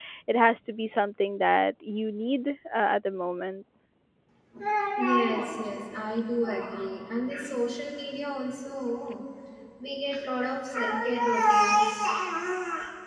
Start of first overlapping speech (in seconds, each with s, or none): none